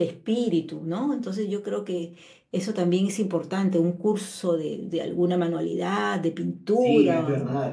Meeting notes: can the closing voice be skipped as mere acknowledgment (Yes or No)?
No